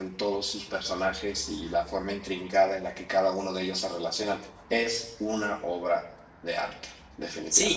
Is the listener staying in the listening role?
No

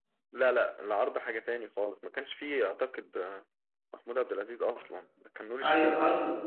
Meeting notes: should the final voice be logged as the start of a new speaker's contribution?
Yes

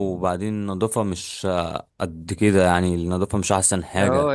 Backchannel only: No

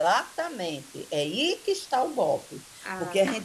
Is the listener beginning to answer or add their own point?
No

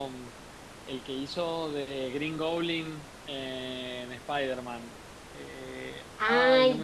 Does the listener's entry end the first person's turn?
Yes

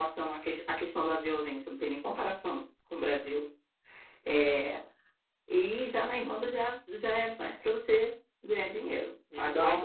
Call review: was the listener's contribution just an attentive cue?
Yes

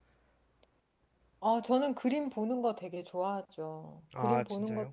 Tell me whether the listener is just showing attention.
Yes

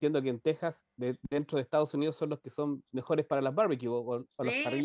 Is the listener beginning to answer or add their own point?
Yes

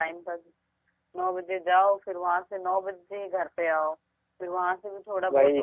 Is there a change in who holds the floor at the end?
No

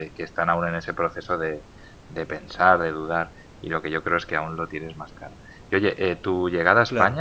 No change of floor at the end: Yes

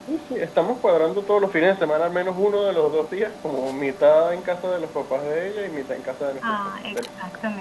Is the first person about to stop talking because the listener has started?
Yes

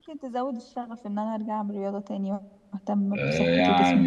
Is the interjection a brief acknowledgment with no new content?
No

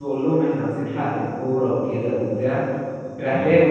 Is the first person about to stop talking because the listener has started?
No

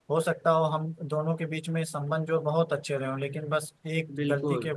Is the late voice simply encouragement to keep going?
Yes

